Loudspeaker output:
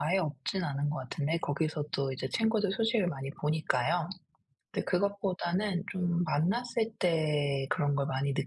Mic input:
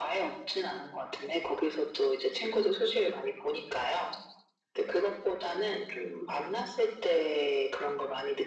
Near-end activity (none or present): none